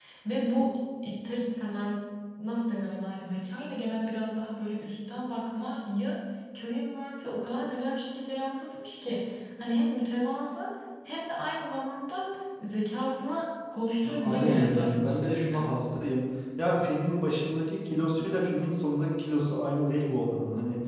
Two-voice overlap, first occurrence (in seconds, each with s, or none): 14.0 s